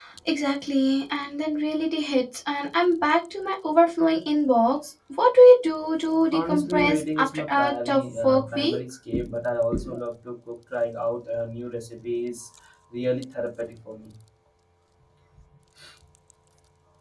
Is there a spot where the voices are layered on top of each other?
Yes, from 6.3 s

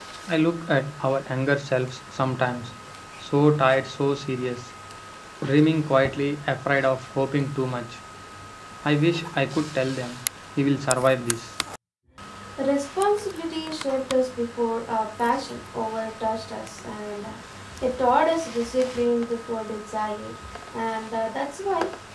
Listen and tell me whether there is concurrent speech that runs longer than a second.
No

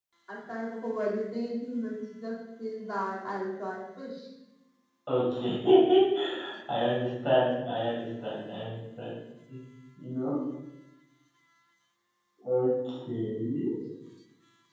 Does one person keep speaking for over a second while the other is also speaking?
No

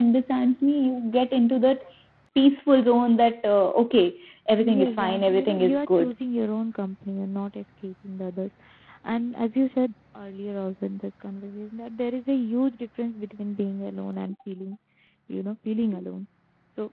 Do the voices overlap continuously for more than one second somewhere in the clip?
Yes, from 4.6 s

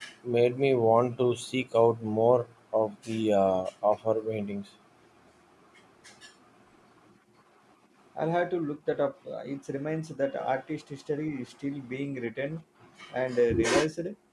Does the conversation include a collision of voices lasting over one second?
No

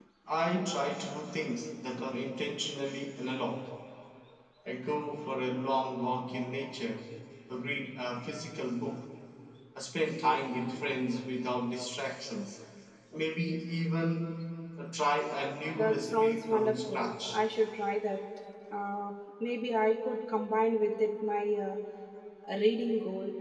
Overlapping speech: Yes, from 15.8 s

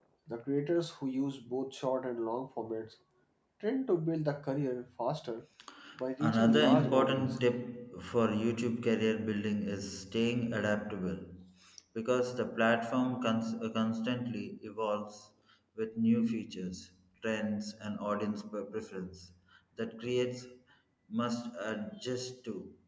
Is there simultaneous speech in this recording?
Yes, from 6.2 s

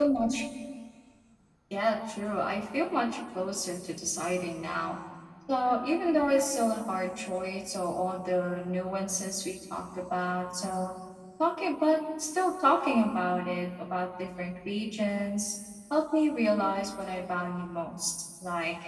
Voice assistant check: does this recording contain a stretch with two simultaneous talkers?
No

